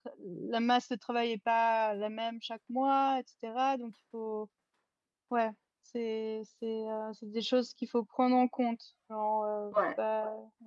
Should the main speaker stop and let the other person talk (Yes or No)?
No